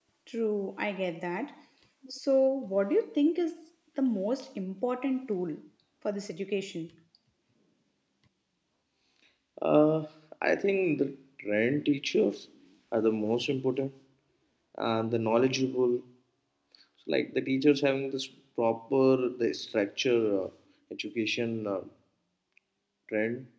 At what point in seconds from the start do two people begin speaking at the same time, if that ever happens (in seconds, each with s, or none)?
none